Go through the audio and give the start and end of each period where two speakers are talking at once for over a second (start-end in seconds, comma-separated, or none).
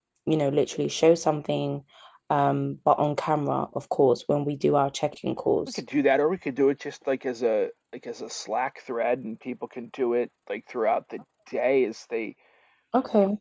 none